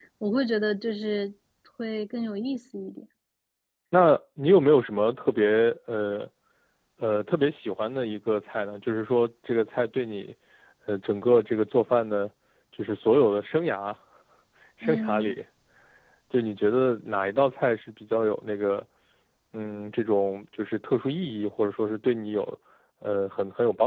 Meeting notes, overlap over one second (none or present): none